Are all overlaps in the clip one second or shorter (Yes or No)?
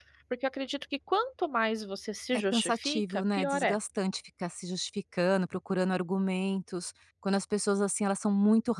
No